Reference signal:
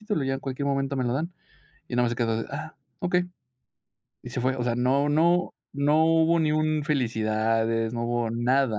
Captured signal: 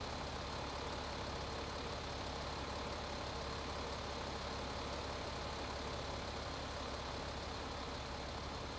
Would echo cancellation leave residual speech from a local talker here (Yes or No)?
No